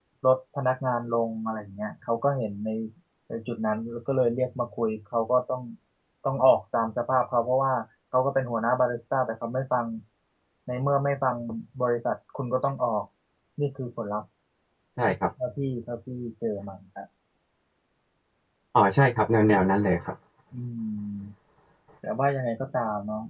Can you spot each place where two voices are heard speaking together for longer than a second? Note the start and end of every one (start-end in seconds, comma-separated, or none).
none